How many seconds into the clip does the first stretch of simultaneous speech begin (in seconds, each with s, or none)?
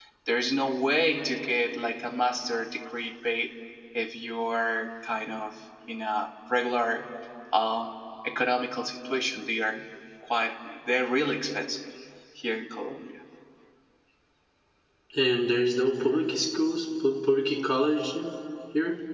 none